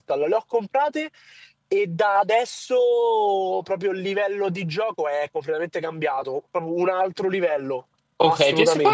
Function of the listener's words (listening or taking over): taking over